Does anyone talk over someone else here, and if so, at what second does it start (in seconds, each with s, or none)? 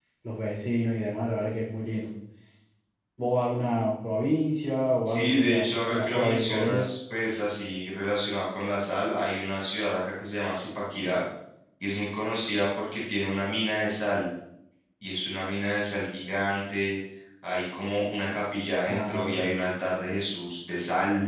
5.0 s